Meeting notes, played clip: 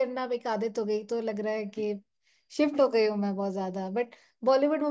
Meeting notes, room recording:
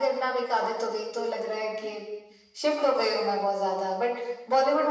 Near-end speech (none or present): none